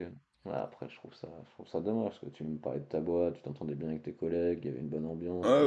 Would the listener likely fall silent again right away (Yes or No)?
No